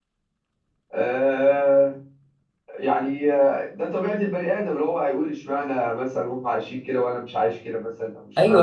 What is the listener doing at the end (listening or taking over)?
taking over